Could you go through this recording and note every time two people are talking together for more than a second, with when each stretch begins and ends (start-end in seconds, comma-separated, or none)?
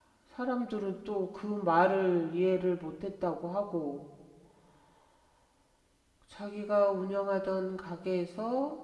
none